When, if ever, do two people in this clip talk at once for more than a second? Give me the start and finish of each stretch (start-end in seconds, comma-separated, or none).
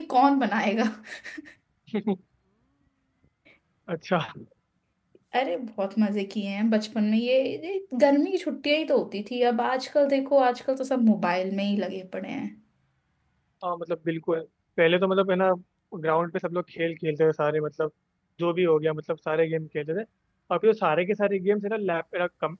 none